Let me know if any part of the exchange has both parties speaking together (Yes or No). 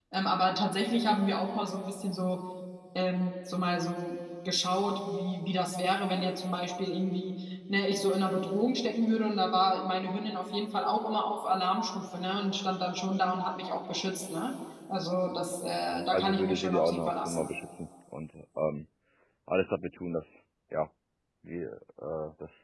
Yes